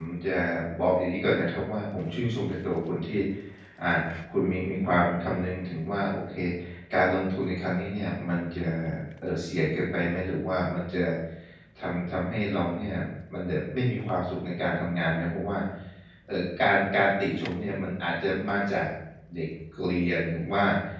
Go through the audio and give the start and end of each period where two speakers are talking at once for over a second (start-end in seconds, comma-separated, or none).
none